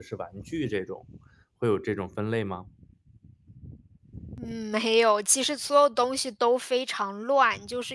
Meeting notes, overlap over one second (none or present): none